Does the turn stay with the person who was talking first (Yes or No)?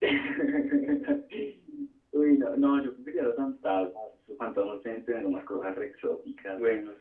Yes